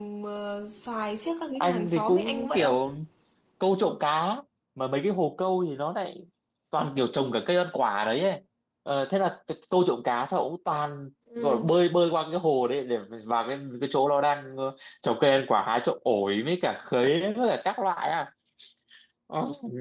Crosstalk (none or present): present